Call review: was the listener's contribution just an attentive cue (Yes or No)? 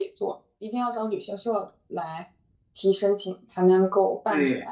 No